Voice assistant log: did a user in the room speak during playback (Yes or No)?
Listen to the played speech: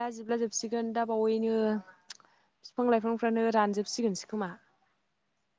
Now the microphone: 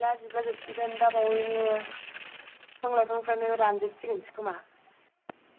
No